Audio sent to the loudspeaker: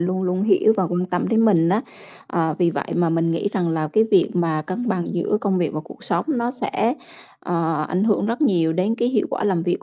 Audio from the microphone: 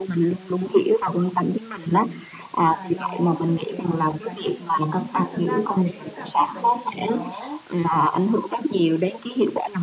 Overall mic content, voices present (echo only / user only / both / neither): both